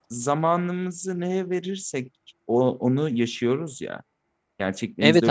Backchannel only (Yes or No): No